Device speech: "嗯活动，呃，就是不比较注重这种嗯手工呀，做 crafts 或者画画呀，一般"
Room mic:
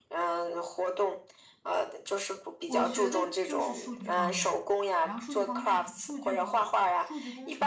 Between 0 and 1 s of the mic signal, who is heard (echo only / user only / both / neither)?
echo only